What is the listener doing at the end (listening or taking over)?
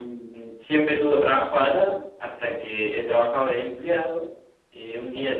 listening